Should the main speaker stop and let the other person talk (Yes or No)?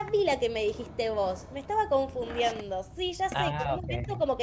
No